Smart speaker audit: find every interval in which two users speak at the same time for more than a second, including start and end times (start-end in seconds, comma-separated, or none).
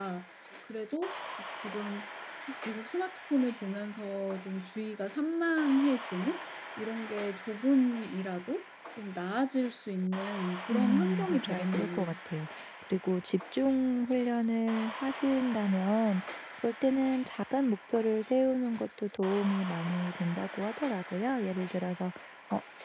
10.7-12.1